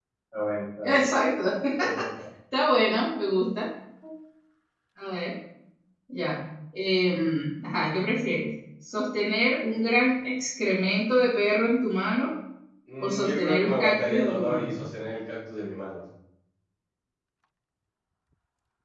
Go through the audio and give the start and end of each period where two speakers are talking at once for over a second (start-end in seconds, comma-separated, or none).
13.0-14.8